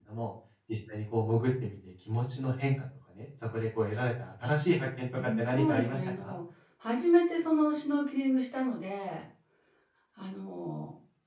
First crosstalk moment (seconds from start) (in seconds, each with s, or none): 5.1 s